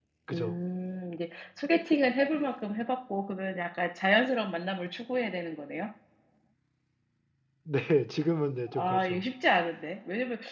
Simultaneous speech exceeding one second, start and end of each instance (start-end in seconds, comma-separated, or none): none